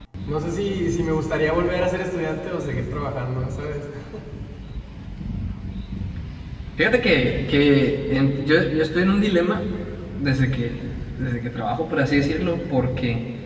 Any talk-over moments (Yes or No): No